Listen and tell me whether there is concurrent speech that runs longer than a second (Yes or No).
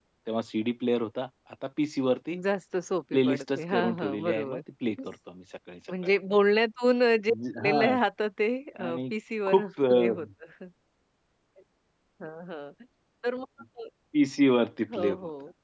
Yes